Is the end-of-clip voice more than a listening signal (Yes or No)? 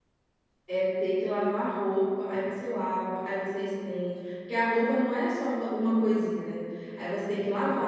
No